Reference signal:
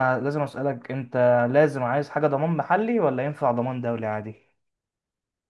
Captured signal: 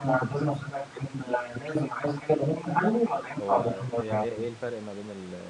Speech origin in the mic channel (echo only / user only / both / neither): both